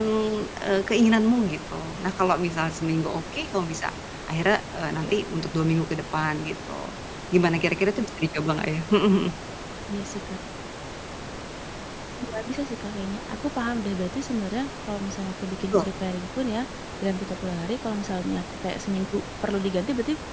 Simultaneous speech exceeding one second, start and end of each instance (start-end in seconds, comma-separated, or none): none